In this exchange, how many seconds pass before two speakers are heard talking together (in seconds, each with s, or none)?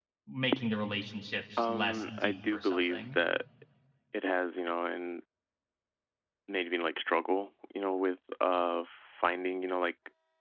1.6 s